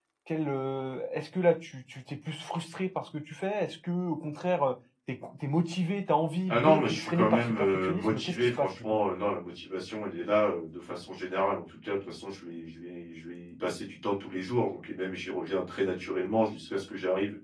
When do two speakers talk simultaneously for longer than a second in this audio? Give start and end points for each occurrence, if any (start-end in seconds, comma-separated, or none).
6.5-9.0